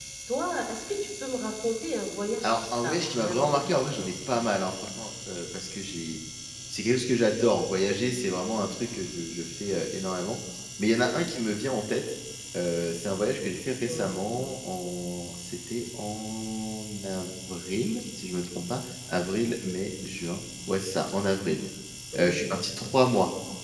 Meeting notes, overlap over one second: present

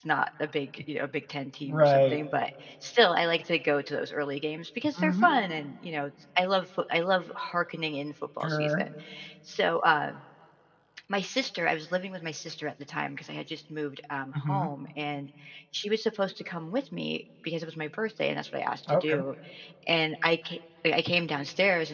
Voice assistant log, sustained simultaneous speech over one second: none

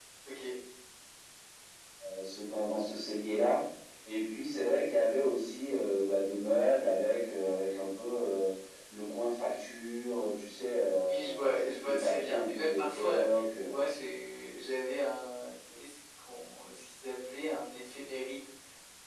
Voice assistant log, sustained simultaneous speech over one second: present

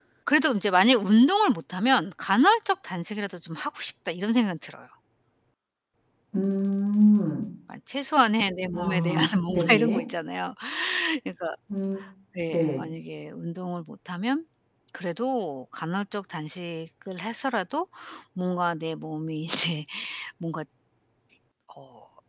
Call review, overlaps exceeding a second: present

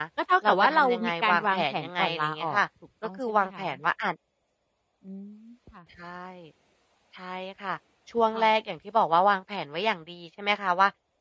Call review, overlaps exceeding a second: present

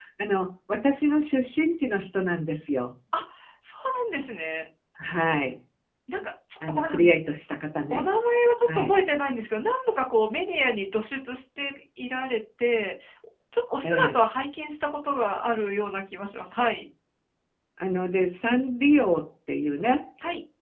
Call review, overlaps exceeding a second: none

